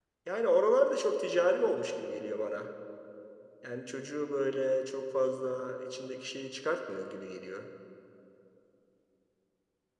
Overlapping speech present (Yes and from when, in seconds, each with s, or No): No